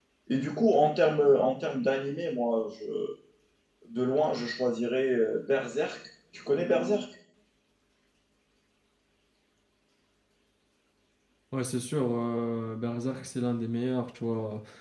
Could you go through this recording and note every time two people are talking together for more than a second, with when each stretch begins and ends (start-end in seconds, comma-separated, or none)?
none